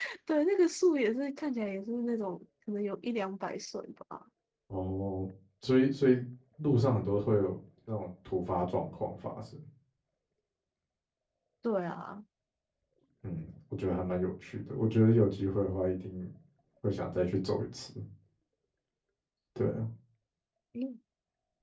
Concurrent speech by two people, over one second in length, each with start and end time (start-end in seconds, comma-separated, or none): none